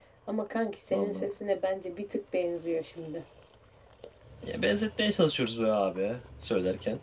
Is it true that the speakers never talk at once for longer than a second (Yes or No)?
Yes